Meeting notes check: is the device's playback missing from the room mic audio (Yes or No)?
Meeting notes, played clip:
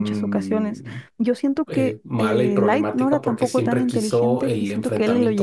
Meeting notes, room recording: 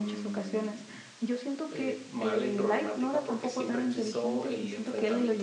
No